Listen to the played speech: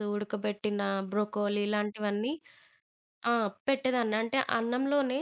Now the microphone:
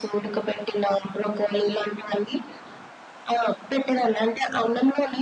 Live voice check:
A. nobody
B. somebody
A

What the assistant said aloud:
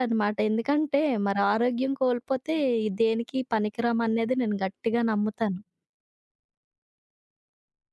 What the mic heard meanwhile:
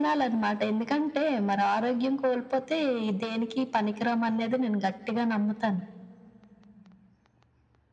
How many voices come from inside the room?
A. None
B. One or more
A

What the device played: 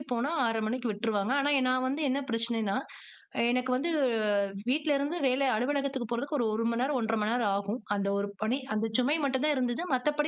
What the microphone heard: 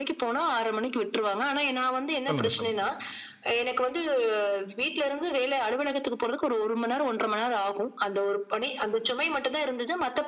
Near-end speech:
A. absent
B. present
B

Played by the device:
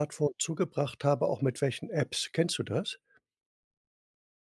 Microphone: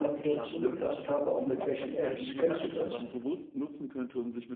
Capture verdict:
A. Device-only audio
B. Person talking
B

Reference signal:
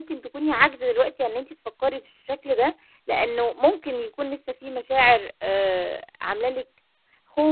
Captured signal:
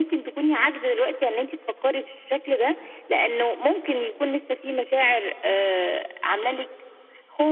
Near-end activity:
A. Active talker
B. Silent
B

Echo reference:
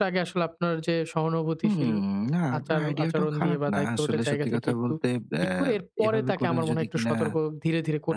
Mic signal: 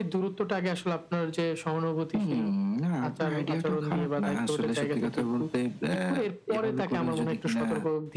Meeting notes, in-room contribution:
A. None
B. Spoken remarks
A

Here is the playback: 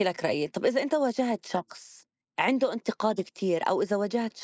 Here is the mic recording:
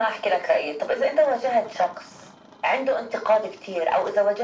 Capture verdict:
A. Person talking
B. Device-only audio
B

